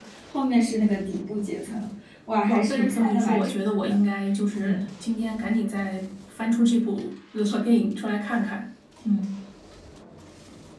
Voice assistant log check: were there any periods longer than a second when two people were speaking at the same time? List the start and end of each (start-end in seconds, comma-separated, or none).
2.5-3.9